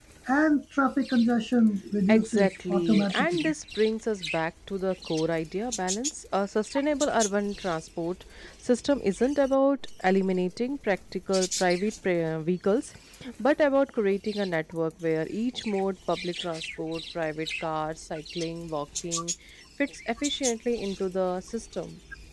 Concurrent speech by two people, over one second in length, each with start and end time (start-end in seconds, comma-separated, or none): 2.1-3.5